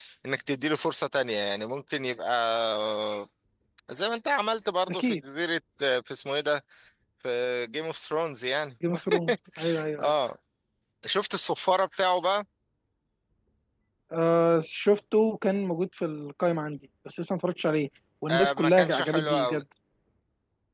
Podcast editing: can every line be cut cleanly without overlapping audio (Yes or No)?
No